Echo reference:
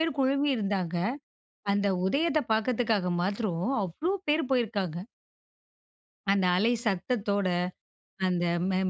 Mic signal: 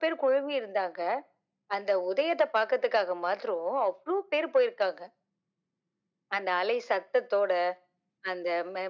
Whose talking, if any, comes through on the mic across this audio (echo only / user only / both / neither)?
echo only